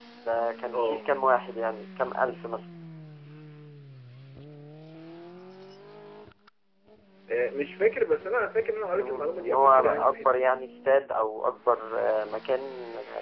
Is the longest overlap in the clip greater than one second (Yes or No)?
Yes